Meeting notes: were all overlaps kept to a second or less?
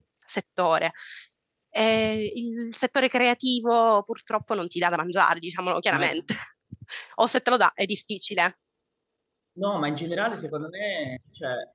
Yes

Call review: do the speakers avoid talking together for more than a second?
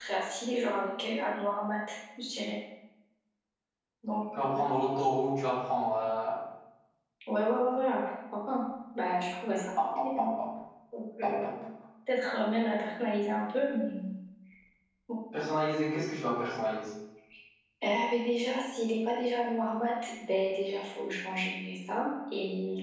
Yes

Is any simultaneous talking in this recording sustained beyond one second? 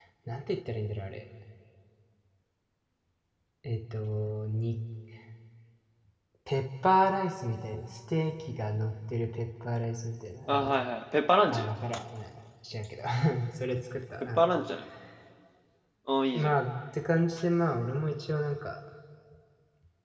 No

